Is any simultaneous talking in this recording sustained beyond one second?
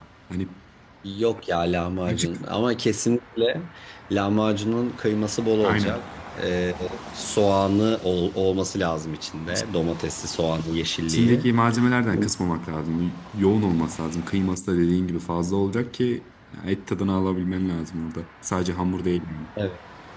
No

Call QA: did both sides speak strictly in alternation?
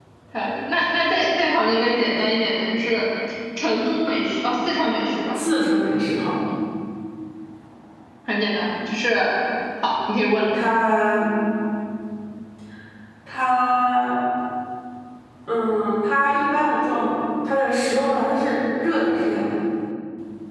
Yes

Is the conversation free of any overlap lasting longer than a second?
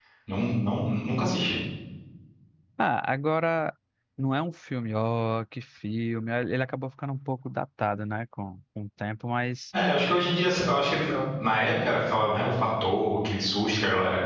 Yes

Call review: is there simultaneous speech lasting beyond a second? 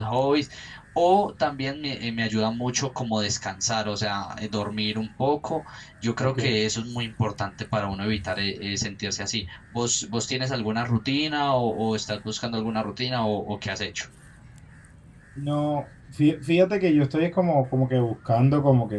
No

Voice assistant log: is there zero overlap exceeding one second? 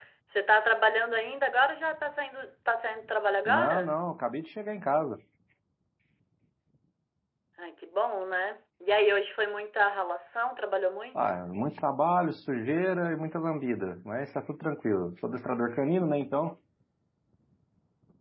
Yes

